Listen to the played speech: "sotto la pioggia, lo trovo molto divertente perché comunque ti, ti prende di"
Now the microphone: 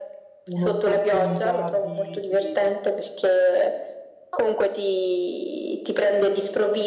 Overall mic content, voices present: both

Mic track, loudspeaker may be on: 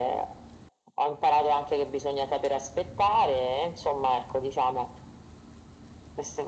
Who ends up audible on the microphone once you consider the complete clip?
echo only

